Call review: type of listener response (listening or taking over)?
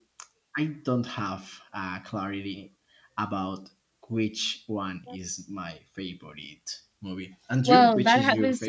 taking over